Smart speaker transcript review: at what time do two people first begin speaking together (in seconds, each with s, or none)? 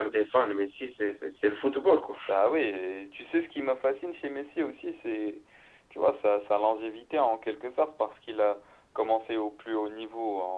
none